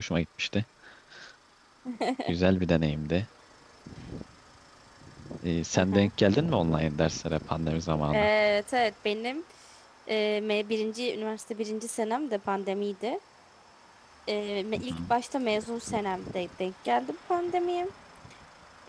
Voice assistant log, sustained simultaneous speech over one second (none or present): none